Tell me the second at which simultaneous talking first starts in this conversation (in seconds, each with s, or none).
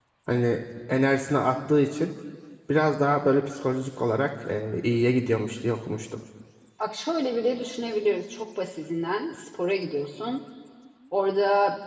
none